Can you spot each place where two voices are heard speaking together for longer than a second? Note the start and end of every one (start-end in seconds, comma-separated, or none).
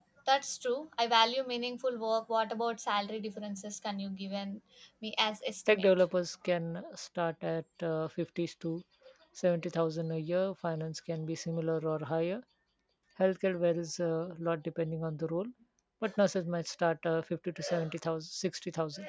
none